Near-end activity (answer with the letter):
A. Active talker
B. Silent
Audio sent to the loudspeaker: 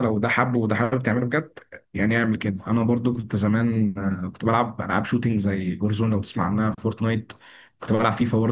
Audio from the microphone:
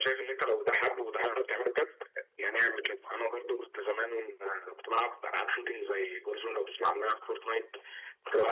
B